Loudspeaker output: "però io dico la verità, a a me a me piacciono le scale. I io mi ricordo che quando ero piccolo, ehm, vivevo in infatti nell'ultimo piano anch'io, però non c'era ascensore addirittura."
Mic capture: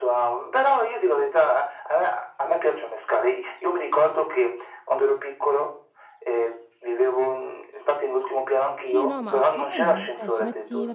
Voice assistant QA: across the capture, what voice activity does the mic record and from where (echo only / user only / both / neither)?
both